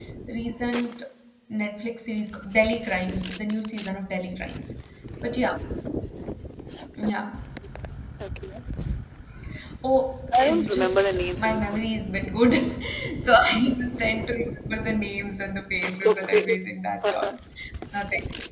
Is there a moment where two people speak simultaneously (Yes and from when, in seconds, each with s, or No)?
Yes, from 10.4 s